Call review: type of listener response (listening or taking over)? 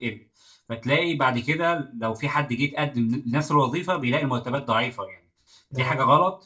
listening